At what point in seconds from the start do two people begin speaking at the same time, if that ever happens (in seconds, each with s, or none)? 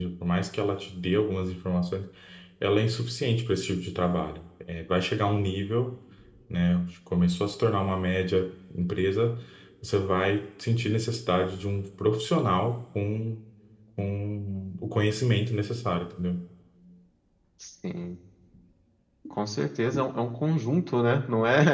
none